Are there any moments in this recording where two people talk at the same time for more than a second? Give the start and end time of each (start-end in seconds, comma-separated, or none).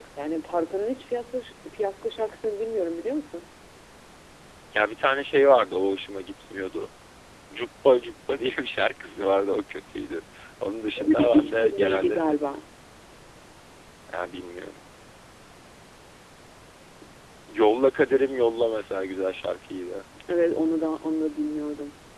11.0-12.4